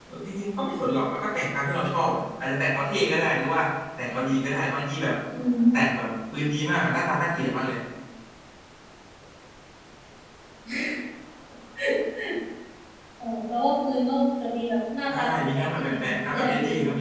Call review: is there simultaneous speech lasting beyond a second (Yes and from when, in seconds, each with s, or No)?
Yes, from 15.1 s